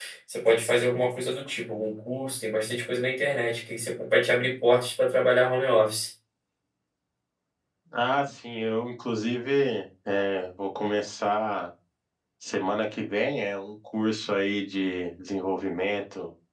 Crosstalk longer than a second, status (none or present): none